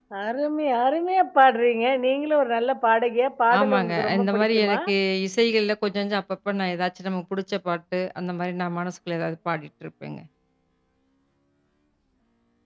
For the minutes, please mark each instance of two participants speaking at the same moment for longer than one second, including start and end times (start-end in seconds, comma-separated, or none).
3.6-4.8